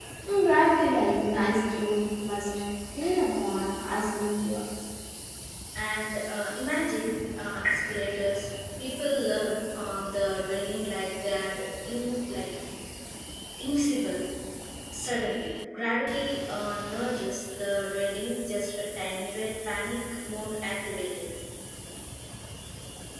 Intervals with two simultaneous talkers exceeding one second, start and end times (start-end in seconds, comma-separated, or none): none